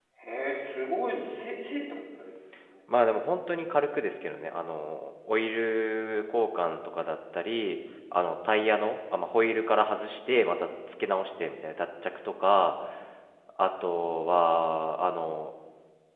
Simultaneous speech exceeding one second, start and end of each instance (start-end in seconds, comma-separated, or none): none